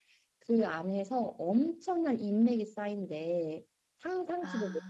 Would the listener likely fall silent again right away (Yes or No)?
Yes